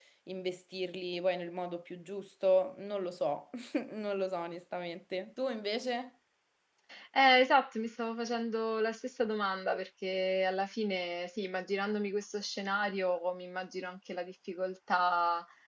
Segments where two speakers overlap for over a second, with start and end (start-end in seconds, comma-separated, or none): none